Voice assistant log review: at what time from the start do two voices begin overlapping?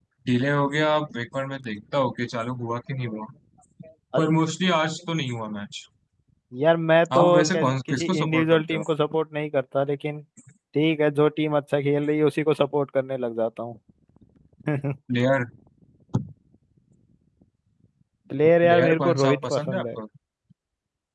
7.2 s

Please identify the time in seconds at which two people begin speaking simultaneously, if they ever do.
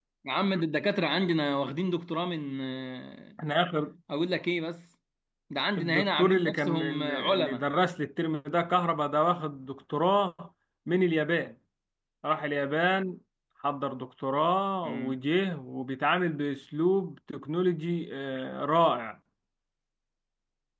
5.8 s

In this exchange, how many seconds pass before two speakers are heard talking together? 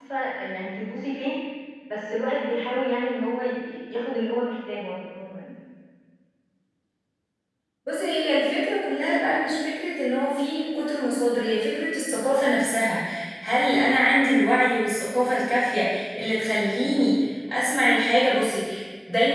none

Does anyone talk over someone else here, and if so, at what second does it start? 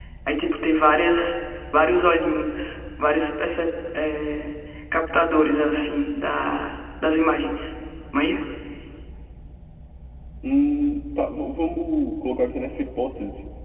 none

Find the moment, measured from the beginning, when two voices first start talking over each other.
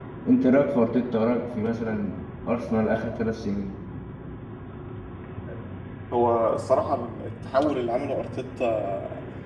none

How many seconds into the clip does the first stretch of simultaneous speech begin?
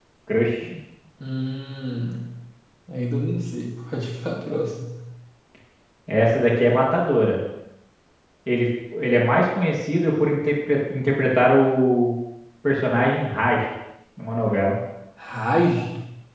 none

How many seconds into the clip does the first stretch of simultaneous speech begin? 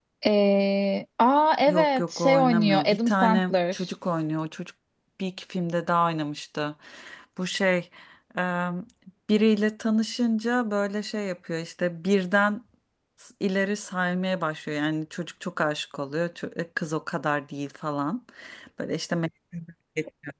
1.7 s

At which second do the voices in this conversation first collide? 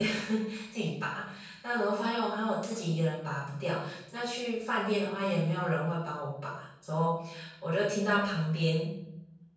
none

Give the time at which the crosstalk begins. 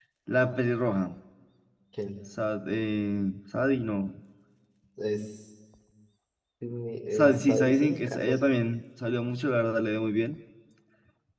7.1 s

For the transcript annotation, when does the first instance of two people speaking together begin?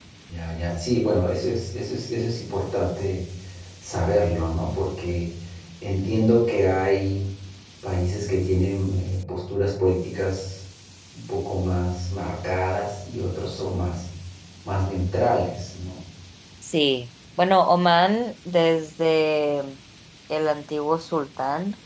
none

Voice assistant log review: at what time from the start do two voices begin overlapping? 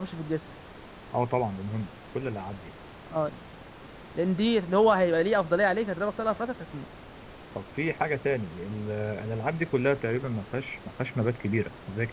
none

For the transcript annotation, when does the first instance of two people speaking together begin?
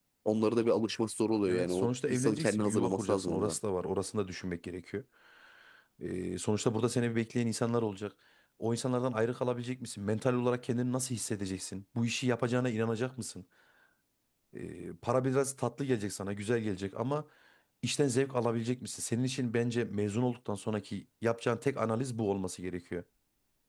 1.5 s

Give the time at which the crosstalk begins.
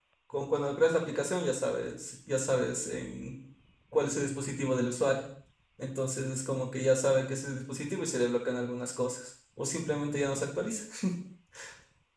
none

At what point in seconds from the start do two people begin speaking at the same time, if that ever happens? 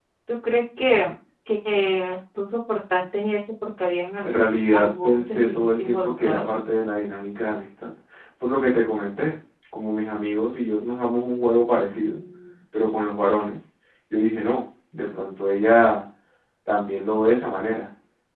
4.2 s

